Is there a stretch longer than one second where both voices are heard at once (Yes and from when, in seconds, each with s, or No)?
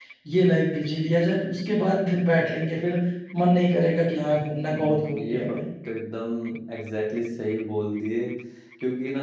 Yes, from 4.2 s